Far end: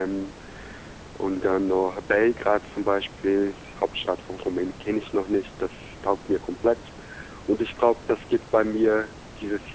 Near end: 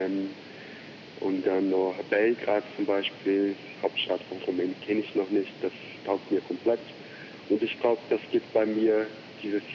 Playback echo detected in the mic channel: Yes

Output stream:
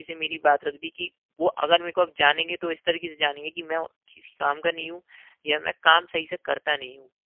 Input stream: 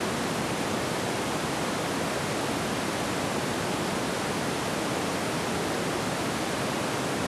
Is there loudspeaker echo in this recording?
No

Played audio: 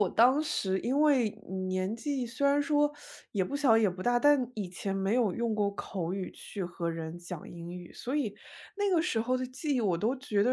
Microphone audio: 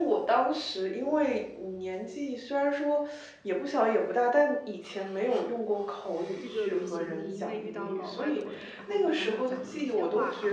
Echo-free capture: No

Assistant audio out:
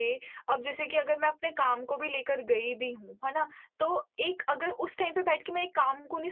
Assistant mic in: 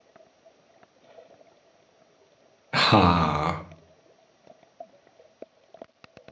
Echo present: No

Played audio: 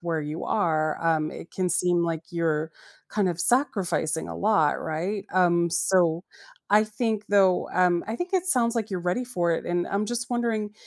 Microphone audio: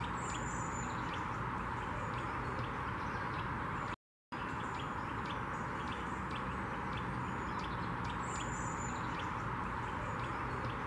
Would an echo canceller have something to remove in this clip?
No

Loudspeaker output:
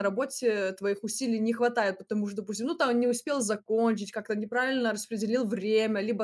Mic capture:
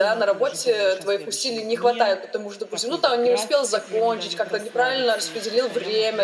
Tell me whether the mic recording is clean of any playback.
No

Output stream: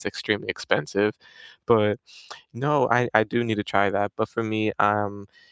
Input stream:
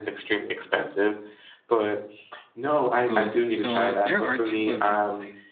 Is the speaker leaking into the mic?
Yes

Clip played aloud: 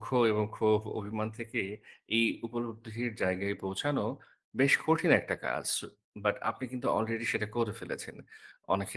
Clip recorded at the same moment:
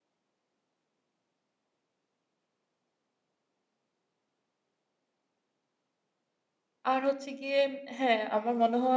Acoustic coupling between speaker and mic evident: No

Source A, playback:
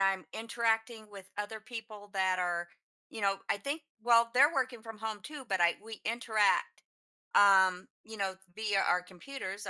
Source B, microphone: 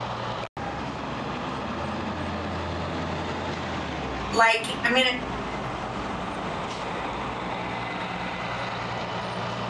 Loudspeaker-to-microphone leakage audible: No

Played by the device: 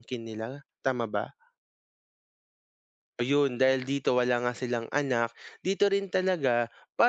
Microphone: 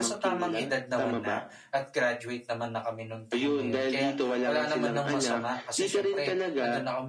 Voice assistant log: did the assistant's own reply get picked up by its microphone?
Yes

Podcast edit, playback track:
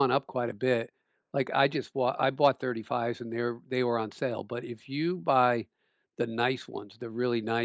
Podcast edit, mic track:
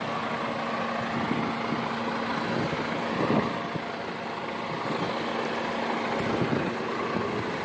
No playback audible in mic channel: Yes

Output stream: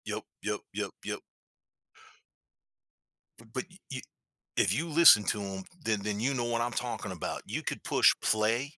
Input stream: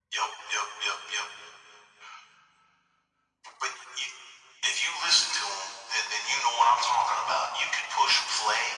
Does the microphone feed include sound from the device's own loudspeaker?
Yes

